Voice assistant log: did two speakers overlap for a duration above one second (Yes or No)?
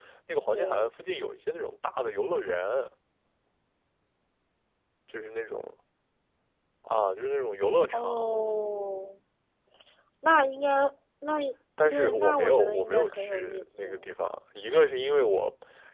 Yes